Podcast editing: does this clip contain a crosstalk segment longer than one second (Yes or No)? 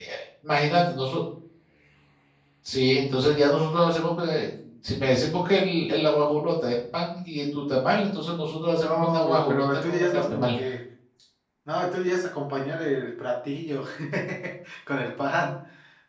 Yes